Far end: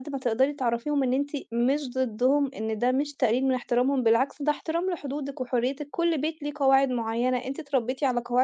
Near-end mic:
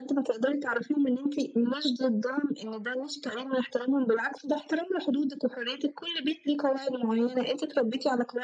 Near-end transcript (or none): none